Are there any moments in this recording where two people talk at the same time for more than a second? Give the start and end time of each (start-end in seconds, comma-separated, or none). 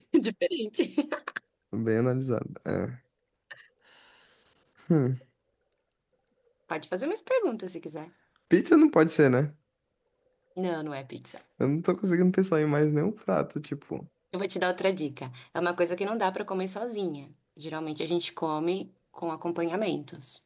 none